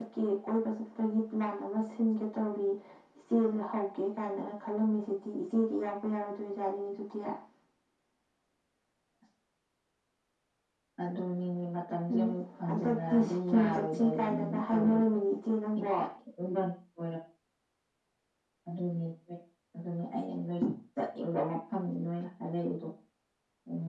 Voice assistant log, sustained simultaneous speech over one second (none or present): present